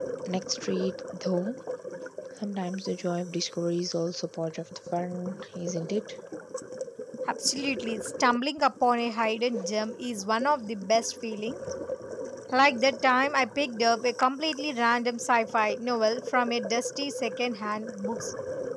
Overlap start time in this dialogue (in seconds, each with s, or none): none